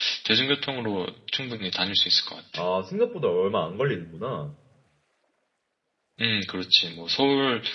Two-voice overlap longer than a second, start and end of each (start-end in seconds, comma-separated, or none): none